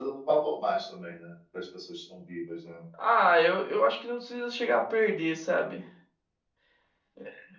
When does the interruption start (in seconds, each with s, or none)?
none